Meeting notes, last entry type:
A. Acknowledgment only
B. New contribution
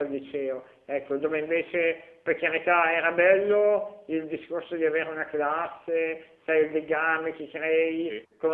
A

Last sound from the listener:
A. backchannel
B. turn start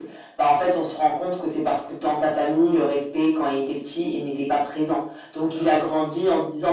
A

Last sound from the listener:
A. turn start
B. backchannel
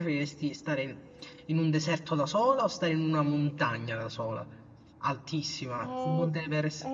A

